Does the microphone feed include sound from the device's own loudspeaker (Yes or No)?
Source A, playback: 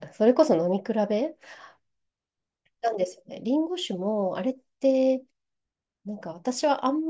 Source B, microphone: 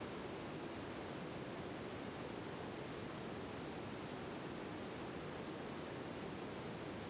No